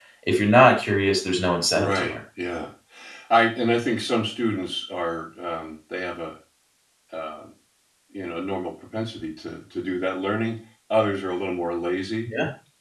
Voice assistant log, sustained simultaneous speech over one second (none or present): none